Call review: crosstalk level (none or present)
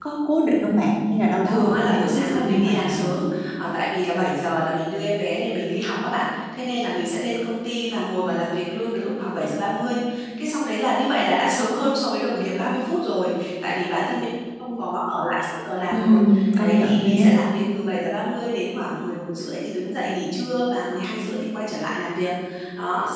present